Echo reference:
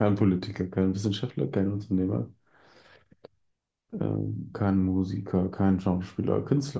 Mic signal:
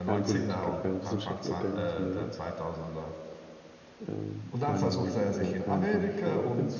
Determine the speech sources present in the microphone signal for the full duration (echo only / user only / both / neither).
both